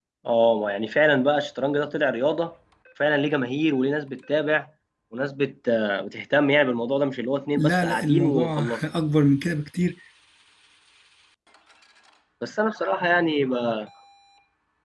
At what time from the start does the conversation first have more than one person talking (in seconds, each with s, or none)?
7.6 s